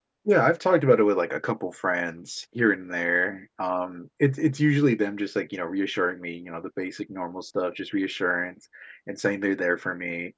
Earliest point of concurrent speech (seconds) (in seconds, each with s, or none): none